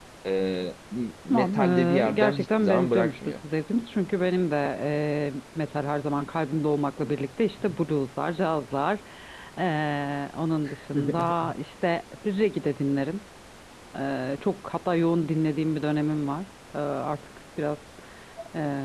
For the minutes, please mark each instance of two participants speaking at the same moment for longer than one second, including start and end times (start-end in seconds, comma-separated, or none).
1.3-3.4